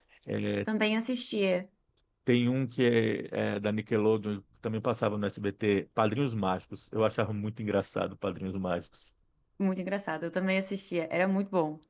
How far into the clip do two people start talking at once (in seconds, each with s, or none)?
none